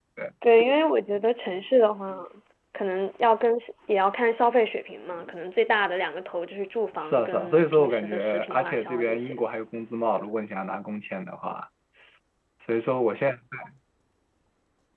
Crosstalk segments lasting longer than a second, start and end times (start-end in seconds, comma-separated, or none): 7.0-9.4